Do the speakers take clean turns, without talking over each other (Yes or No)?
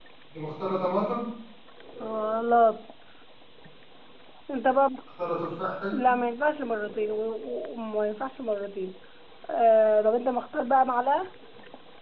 Yes